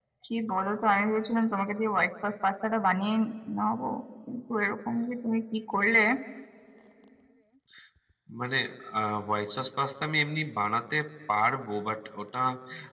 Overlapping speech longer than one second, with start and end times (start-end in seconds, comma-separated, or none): none